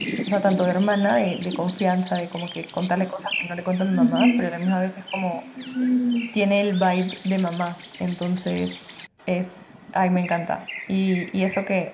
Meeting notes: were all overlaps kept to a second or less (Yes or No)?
Yes